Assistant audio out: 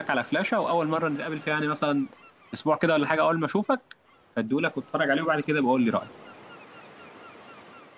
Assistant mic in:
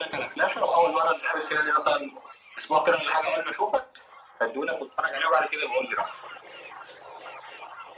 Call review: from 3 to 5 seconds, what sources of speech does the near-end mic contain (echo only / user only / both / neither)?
echo only